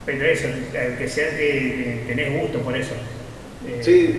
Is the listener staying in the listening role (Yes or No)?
No